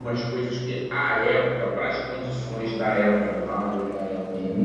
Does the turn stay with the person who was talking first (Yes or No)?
Yes